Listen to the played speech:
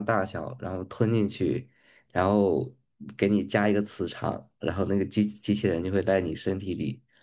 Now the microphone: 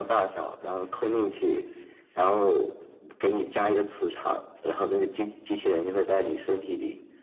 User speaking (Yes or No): No